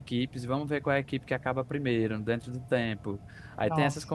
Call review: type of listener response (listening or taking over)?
listening